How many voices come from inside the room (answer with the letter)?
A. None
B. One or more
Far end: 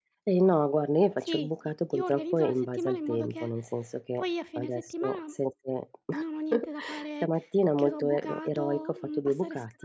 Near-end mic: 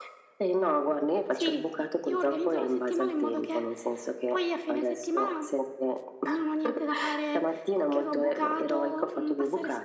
A